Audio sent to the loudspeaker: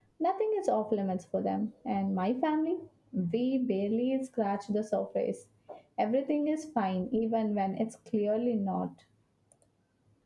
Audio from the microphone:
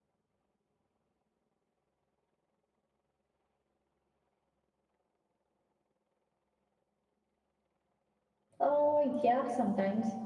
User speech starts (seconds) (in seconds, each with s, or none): 8.6 s